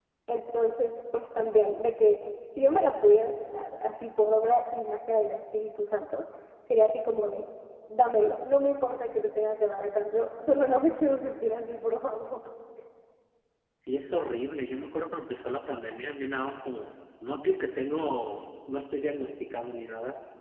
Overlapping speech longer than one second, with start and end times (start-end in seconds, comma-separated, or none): none